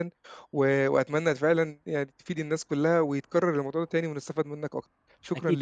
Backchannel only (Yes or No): No